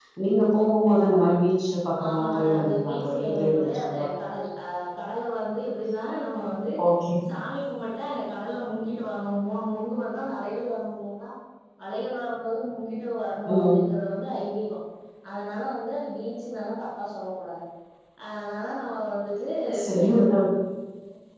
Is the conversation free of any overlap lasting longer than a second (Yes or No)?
No